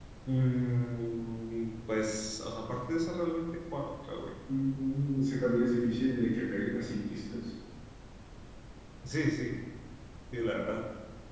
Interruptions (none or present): none